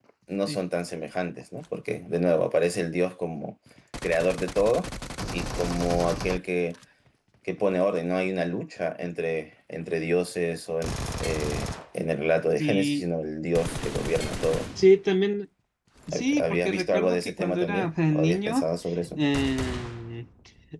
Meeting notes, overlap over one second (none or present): present